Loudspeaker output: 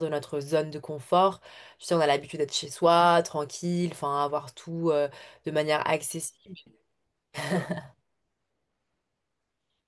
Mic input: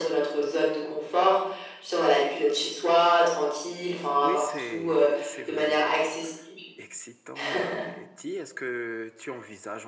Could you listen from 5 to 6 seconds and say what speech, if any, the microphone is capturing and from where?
both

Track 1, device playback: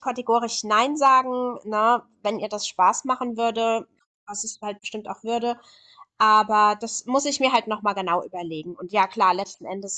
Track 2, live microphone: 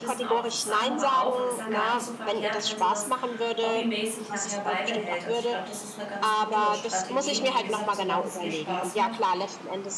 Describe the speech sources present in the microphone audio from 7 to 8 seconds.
both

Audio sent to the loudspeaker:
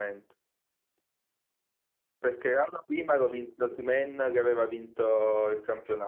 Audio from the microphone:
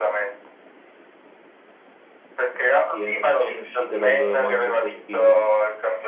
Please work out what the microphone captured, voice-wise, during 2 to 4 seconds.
both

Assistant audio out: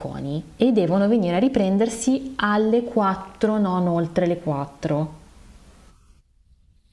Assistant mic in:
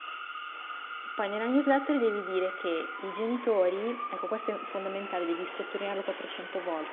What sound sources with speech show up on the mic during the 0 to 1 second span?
neither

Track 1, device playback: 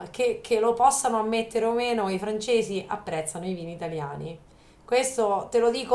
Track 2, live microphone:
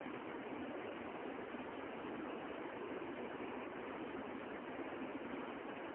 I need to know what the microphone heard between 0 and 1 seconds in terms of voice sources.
neither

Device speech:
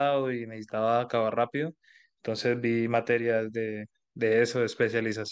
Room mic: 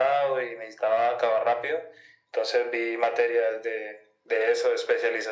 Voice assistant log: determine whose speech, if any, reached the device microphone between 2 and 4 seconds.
echo only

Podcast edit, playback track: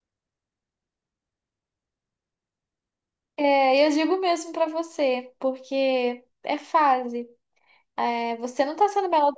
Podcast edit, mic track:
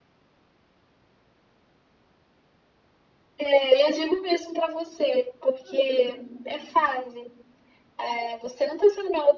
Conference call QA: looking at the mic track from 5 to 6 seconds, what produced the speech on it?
both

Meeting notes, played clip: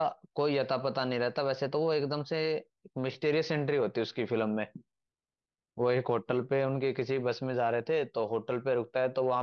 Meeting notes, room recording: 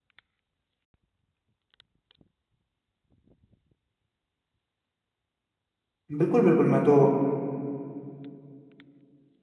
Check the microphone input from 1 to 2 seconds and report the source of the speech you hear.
neither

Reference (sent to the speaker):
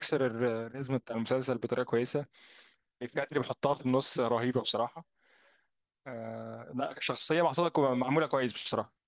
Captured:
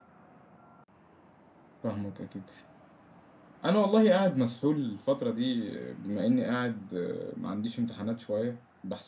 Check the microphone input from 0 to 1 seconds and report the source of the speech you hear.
neither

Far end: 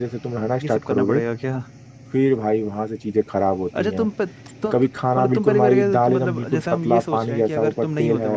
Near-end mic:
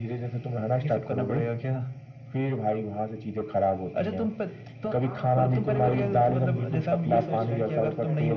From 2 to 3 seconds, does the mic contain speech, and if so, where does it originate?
echo only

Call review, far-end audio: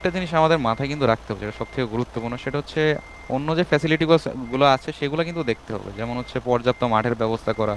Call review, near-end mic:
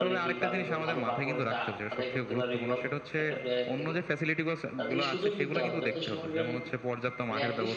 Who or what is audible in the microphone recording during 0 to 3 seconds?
both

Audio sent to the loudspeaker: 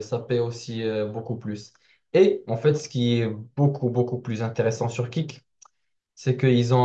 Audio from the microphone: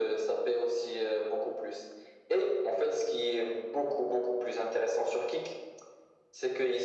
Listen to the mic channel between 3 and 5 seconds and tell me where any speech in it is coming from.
echo only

